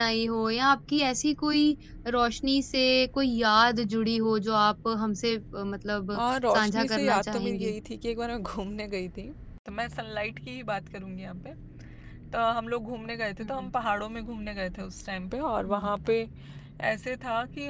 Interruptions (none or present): present